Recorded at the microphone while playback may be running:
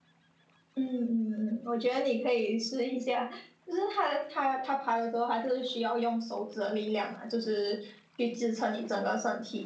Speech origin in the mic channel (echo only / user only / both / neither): user only